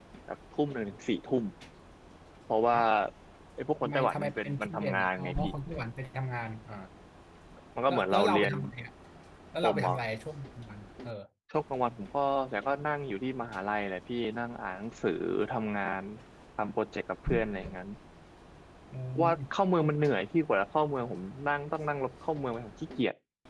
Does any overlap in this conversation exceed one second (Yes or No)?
Yes